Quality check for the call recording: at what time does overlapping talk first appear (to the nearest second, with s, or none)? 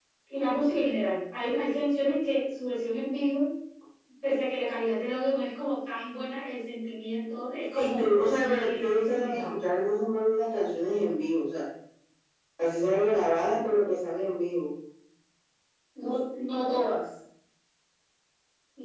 8 s